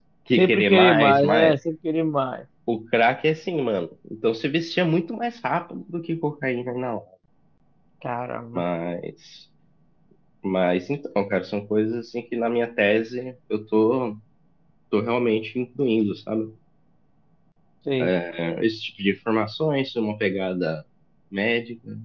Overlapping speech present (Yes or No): Yes